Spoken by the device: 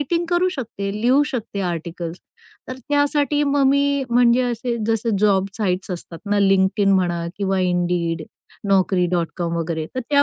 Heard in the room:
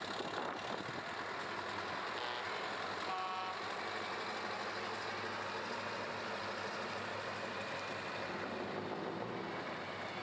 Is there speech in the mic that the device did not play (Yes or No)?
No